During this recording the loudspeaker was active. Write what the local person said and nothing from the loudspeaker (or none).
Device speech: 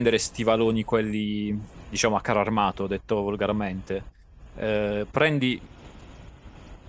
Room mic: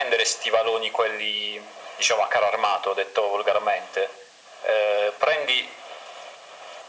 none